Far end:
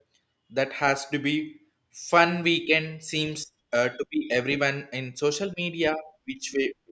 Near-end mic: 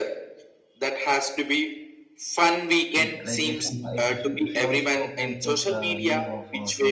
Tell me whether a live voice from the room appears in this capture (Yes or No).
Yes